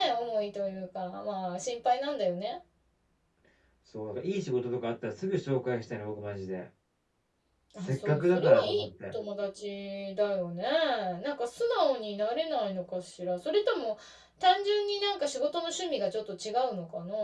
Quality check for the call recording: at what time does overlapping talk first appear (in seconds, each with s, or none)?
7.8 s